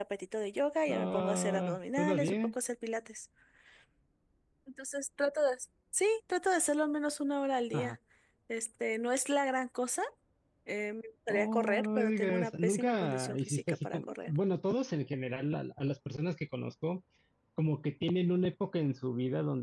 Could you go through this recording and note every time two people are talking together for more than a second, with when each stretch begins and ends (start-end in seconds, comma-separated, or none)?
0.9-2.5, 11.3-14.3